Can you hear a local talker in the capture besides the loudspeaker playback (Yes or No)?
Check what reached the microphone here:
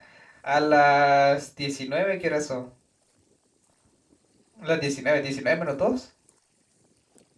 Yes